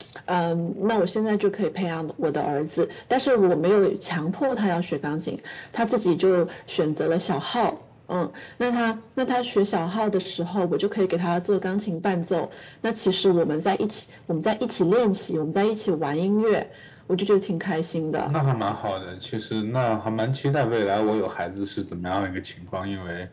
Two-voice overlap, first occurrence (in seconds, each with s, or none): none